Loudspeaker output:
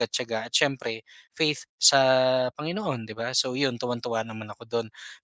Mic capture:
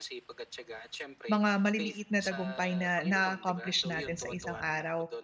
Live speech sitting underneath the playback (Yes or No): No